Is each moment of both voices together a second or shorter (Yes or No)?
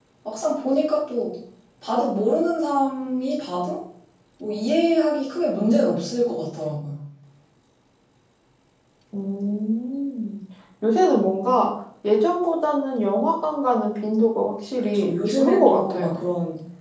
No